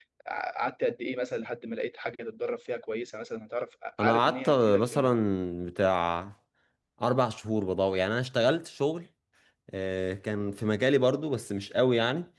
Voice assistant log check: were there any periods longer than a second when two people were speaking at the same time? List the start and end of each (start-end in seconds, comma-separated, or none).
4.0-5.2